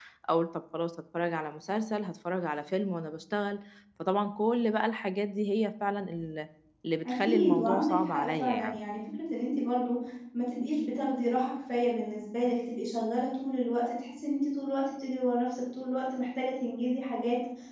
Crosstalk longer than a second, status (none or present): present